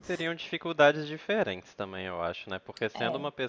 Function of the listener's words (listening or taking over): listening